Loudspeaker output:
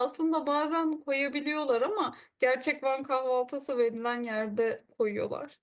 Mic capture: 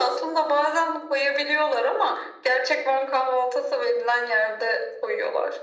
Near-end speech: none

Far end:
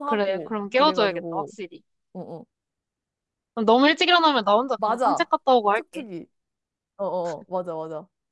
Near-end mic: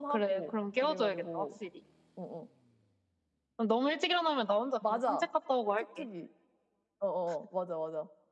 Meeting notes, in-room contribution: none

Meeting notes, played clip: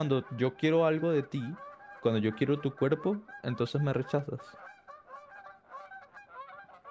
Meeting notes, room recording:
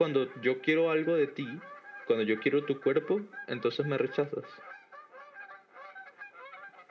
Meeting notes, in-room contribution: none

